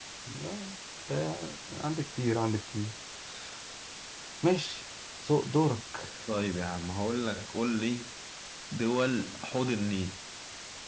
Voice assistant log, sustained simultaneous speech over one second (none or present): none